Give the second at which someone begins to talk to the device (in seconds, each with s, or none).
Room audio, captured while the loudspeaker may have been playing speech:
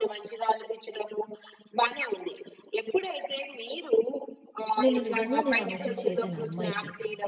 4.8 s